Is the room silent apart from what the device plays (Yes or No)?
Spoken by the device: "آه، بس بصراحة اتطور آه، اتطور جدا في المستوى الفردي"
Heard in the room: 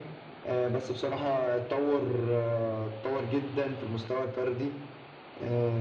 Yes